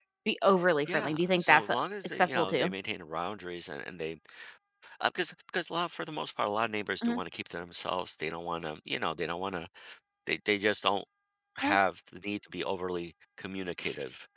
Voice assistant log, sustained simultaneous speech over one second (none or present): present